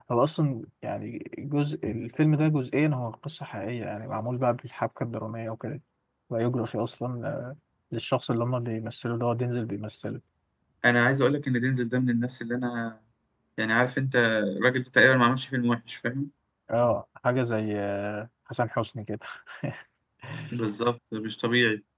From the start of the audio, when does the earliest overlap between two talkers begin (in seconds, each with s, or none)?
none